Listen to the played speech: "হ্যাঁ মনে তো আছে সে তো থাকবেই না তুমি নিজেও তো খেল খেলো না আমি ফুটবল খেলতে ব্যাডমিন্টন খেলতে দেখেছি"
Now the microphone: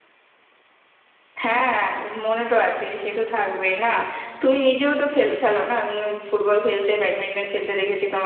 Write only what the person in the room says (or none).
none